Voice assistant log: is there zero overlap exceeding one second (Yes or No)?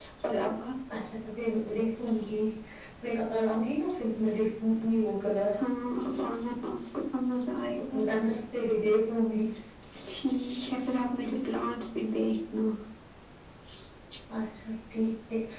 Yes